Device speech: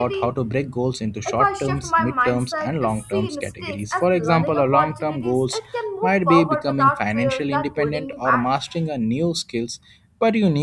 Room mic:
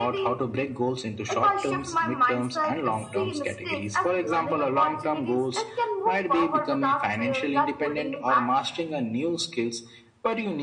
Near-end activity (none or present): none